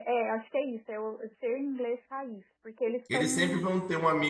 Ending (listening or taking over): taking over